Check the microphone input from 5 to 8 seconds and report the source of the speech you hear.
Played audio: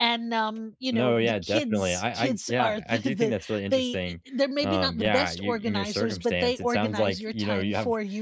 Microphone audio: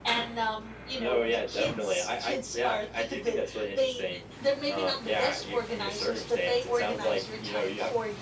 echo only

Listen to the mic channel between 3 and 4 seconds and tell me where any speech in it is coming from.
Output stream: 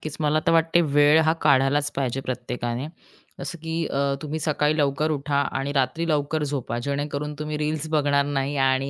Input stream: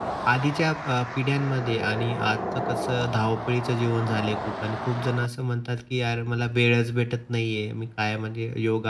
user only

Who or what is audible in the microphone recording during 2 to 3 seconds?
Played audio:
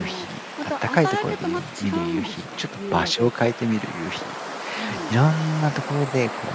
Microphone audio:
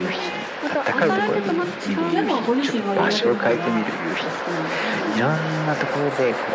both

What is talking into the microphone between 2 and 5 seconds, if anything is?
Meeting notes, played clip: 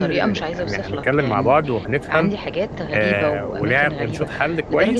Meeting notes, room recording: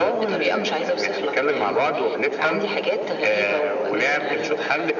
echo only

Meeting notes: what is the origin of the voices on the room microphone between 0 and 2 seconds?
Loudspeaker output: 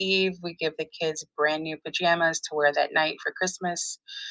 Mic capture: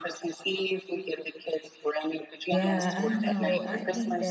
echo only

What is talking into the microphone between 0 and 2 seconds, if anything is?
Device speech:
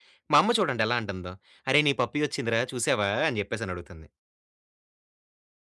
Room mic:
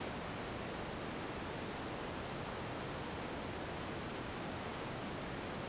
neither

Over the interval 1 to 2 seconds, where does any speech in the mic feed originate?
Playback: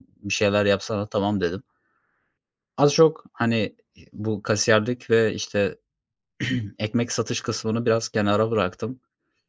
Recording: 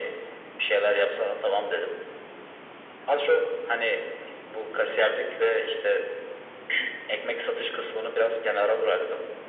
echo only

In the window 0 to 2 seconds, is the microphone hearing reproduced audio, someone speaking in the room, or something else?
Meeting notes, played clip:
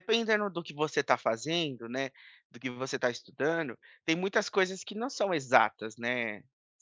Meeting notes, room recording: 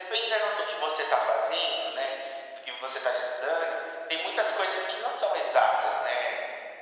echo only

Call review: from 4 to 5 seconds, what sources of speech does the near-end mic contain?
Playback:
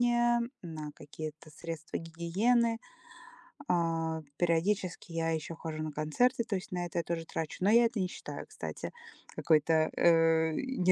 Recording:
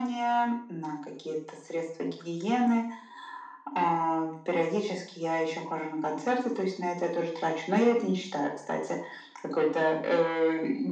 echo only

